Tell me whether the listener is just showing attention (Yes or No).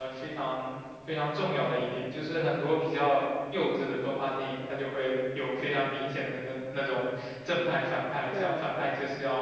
Yes